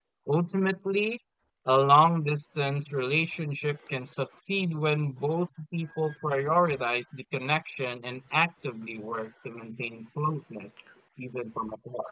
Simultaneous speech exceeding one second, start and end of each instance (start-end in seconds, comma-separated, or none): none